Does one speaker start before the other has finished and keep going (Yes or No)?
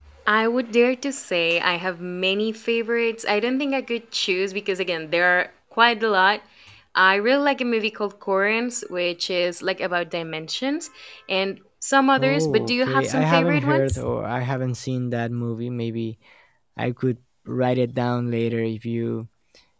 Yes